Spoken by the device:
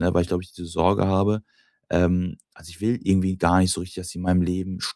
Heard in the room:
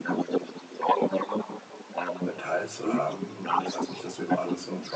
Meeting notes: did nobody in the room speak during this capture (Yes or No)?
No